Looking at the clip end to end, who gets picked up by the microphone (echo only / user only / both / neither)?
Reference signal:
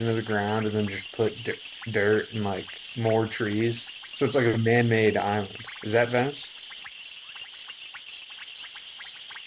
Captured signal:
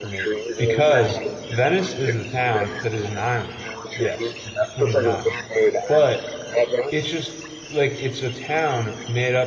both